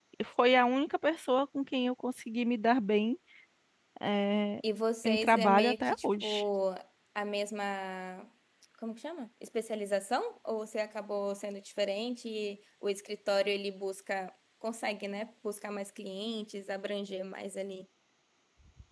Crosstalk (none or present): present